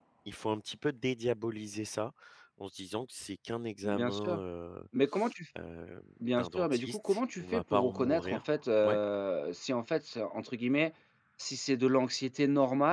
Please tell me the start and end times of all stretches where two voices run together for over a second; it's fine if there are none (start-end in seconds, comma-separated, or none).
6.4-8.4